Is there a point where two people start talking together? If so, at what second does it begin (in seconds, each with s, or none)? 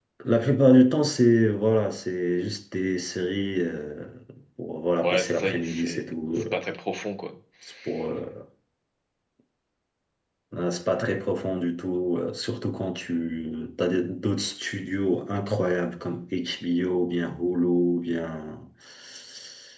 5.0 s